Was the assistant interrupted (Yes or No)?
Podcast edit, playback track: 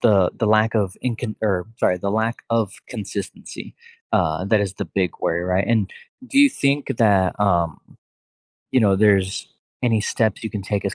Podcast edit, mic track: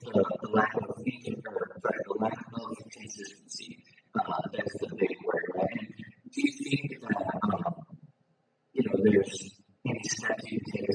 No